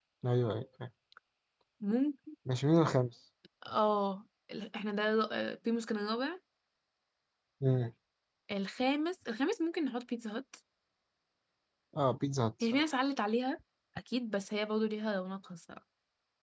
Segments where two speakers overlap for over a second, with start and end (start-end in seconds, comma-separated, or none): none